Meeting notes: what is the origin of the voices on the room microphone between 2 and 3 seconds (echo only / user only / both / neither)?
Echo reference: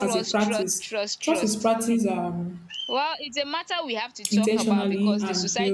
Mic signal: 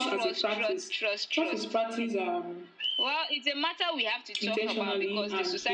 echo only